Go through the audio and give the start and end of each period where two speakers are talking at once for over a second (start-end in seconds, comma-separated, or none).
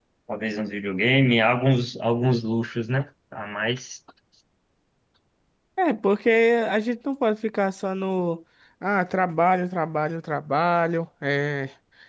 none